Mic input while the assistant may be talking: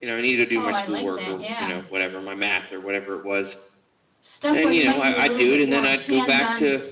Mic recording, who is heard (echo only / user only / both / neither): both